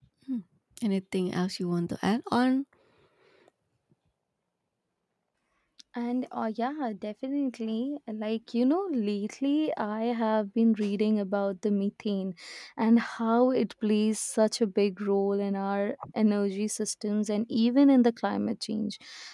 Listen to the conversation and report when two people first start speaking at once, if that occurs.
none

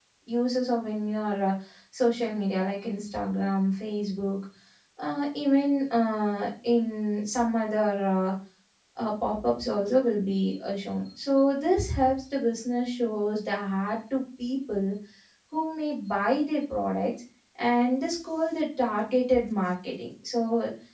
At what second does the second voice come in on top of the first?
none

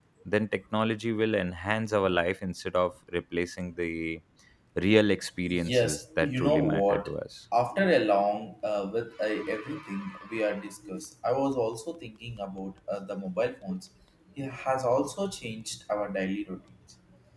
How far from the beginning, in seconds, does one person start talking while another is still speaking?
5.5 s

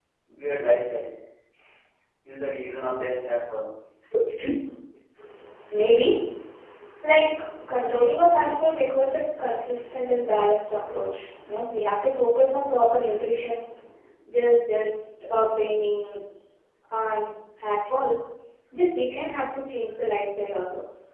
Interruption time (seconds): none

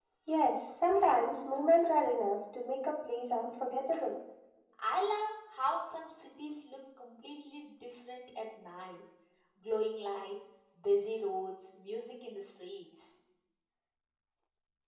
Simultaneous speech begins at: none

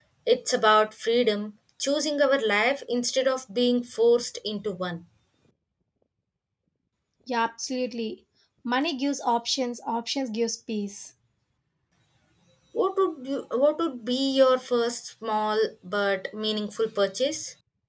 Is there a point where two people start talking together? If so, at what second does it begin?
none

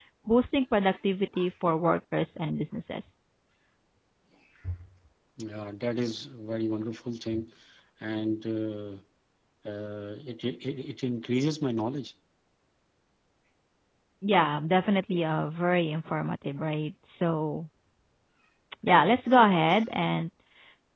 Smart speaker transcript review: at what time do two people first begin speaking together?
none

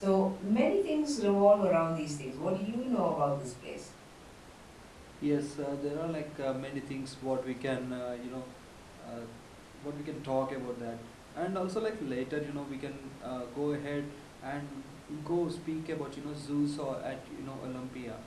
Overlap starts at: none

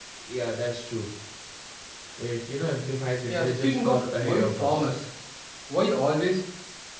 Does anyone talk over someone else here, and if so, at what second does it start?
3.3 s

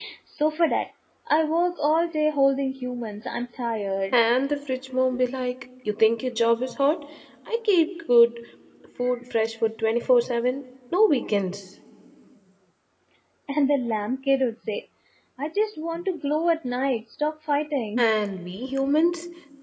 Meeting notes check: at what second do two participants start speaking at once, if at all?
none

